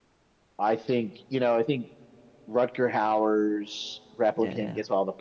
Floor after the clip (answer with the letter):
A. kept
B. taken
A